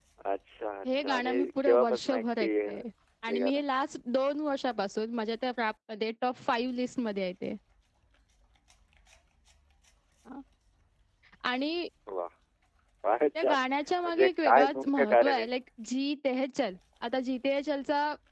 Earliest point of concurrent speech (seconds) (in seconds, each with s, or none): 0.9 s